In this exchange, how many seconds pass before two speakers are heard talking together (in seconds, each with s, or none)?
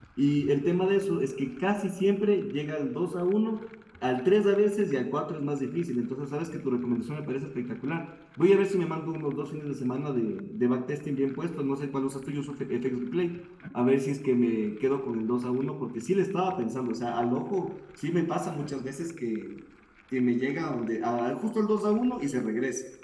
none